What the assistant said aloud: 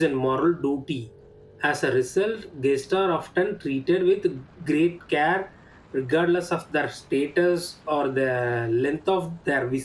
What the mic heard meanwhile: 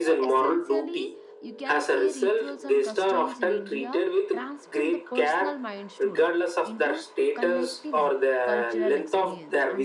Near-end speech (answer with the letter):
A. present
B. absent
A